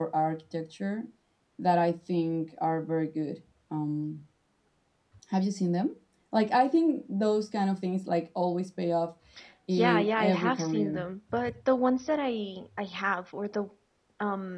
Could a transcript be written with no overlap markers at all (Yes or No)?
No